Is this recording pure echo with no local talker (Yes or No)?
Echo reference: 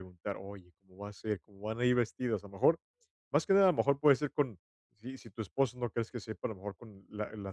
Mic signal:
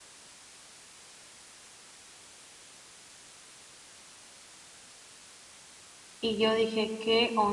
No